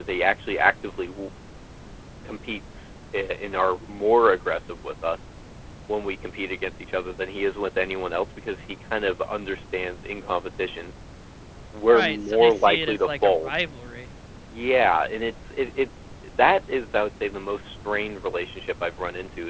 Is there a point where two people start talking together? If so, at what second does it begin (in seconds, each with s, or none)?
11.9 s